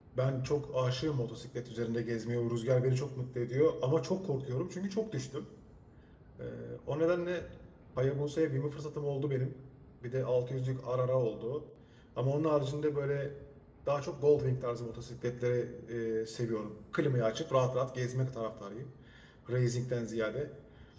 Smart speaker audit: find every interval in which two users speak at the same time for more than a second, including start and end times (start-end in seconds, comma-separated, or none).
none